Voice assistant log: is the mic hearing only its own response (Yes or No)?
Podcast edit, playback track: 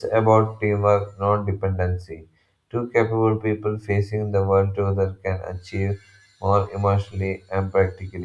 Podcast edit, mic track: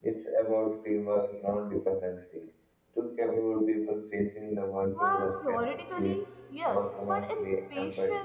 No